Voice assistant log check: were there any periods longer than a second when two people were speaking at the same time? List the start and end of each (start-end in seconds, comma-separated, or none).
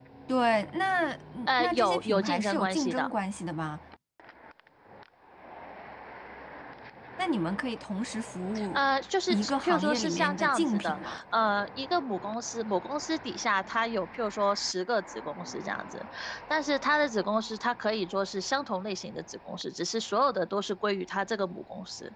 1.5-3.1, 9.3-11.2